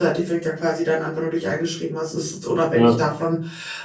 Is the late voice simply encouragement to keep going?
Yes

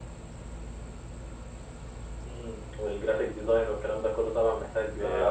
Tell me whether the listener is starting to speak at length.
Yes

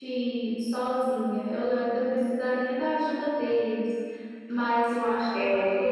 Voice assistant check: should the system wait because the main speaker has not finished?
Yes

